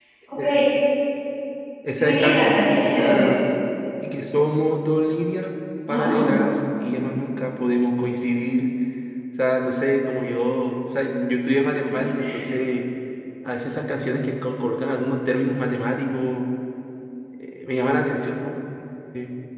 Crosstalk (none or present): present